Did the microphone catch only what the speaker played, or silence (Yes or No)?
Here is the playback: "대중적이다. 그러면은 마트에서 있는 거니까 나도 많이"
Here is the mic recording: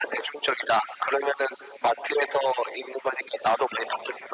Yes